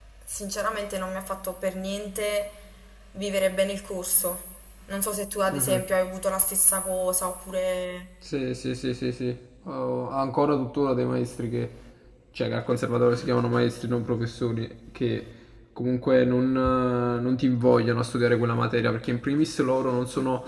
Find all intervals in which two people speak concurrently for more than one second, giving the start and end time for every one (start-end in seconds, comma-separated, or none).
none